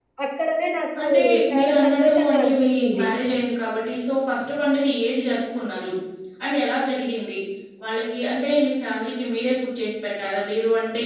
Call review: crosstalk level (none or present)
present